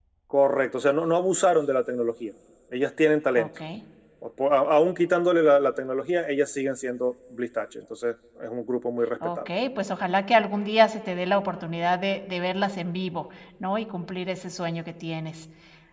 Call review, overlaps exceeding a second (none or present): none